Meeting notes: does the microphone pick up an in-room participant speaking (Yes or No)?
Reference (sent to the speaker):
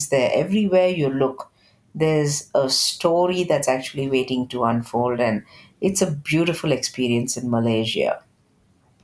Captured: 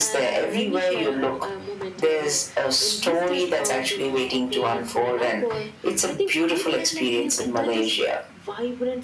Yes